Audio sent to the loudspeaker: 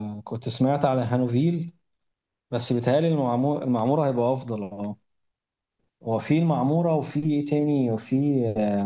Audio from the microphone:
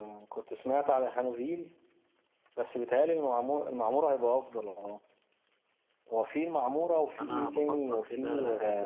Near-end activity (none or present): present